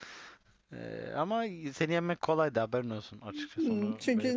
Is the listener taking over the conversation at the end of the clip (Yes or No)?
Yes